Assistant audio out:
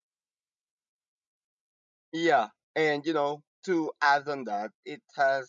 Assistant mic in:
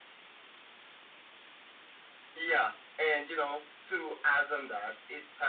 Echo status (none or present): present